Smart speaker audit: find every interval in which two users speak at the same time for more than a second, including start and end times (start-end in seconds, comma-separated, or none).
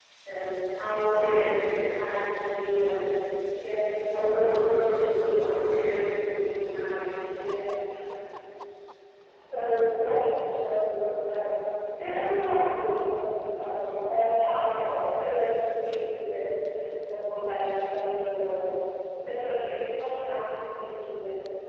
none